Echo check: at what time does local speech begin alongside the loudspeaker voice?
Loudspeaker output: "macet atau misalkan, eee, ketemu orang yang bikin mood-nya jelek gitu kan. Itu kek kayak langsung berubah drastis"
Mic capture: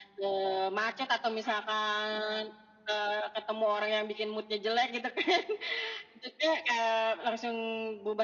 none

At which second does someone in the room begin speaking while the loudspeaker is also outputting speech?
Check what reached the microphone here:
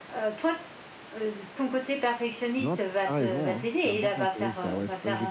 2.6 s

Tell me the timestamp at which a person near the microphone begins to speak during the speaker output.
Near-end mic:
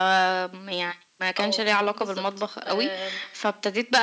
1.4 s

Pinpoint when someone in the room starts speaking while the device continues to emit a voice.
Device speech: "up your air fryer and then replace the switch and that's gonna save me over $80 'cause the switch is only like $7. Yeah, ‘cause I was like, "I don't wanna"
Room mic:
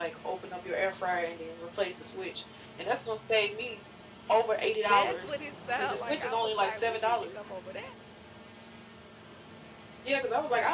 4.7 s

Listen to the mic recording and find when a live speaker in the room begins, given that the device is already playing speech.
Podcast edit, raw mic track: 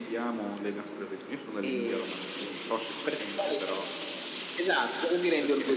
none

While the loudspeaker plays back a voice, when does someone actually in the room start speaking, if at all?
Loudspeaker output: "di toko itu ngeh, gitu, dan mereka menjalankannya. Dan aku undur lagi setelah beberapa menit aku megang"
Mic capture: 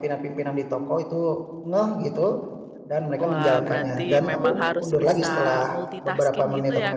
3.2 s

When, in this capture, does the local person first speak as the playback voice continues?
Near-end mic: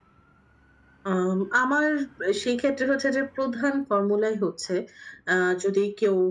none

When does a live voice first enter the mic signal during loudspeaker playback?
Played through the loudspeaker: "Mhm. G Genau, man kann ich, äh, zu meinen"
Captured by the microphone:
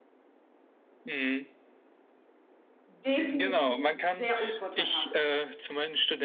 2.9 s

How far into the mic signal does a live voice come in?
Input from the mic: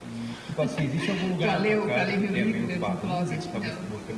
2.1 s

